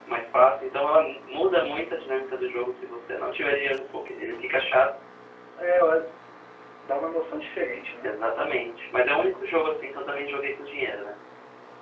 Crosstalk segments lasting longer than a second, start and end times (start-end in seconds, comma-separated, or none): none